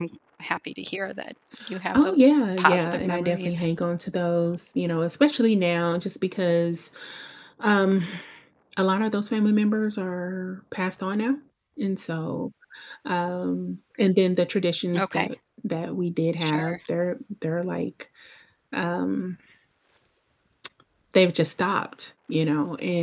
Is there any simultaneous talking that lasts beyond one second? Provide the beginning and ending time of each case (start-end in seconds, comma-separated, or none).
1.9-3.6